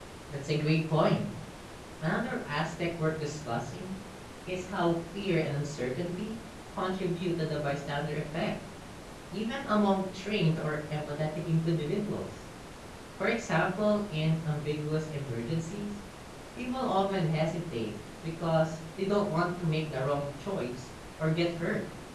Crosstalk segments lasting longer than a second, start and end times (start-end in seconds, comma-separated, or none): none